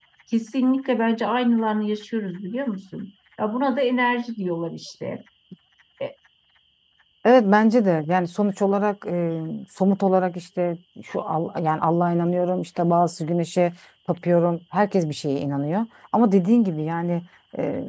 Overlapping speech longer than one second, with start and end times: none

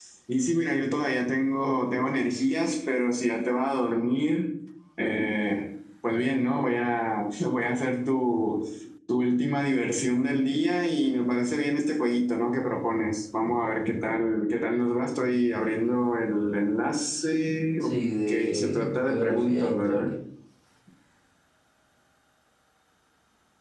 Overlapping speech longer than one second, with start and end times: 18.5-20.1

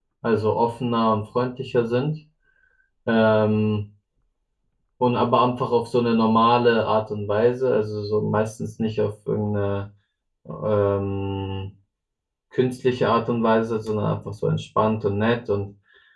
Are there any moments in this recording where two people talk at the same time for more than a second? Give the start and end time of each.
none

